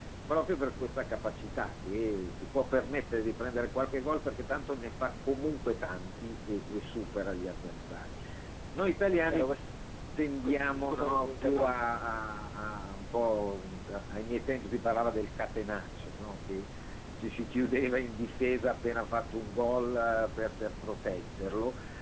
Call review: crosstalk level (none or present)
present